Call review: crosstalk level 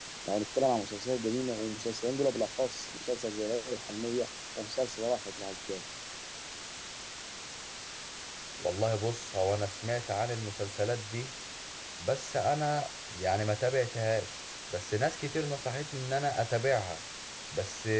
none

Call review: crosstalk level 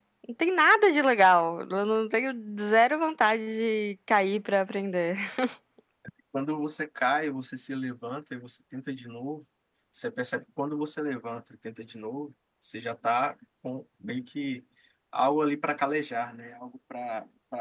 none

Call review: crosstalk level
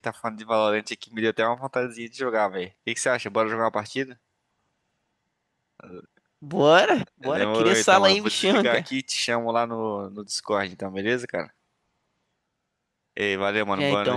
present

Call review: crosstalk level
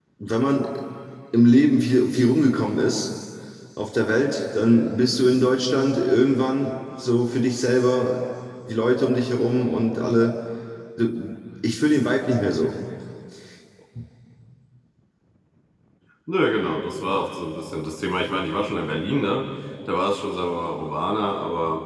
none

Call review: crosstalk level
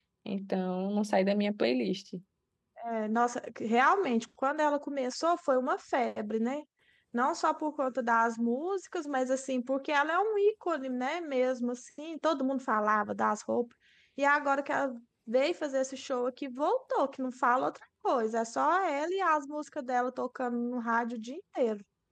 none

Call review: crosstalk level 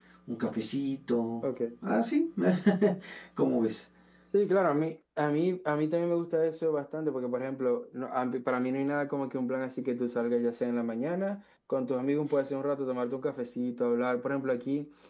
none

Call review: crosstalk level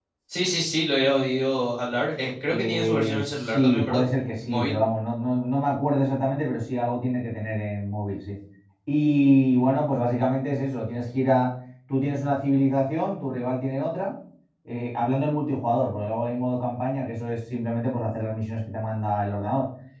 present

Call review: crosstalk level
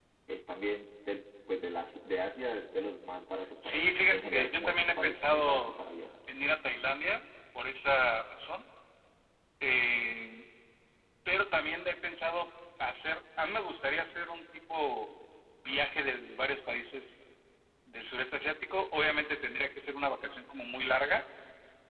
present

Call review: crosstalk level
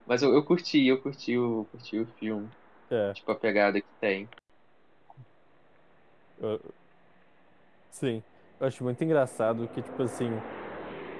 none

